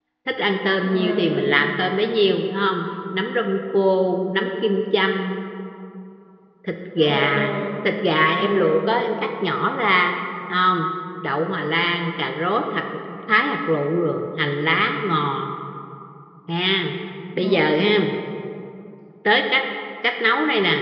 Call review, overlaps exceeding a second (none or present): none